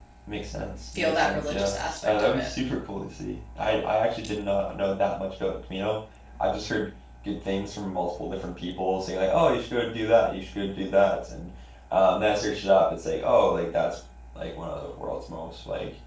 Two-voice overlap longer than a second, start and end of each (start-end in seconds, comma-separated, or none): 0.9-2.5